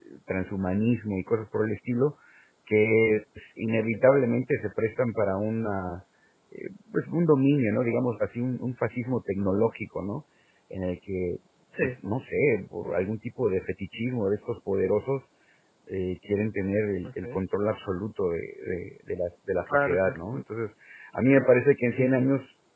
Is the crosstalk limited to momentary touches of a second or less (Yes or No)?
Yes